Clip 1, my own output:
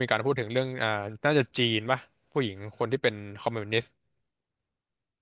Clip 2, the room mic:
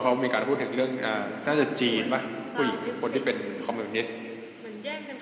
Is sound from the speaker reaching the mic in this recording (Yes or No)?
Yes